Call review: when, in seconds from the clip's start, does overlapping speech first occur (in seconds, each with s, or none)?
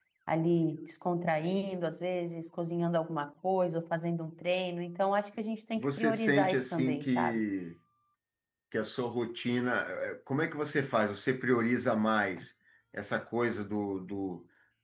5.8 s